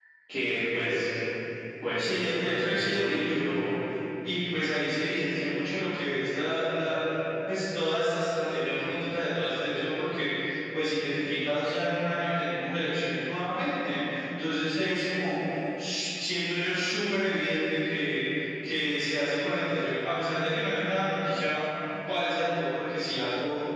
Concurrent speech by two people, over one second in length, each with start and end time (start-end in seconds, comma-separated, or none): 2.0-3.5